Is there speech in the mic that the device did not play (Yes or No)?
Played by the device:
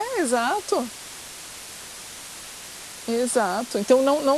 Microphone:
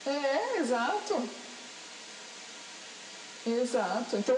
No